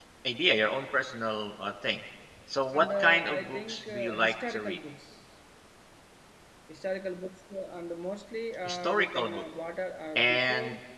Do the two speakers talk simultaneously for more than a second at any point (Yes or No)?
Yes